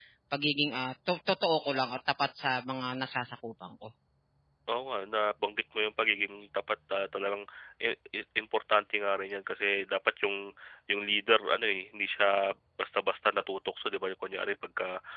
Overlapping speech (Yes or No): No